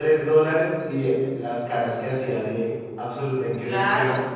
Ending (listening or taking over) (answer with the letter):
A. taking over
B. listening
A